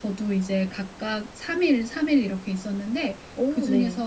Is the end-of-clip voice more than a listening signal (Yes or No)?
No